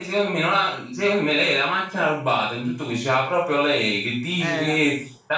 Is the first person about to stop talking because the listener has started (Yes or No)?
No